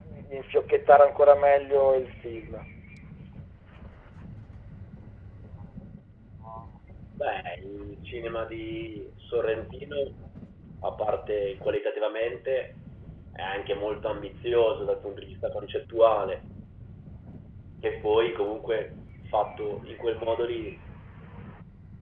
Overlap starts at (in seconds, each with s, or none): none